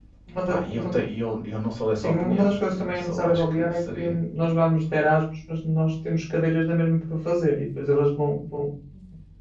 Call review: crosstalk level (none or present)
present